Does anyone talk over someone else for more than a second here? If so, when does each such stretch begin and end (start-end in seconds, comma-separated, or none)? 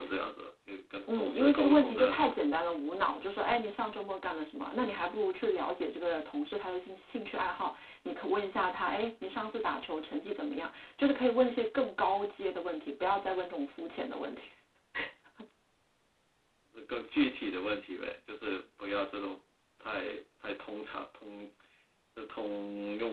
1.1-2.3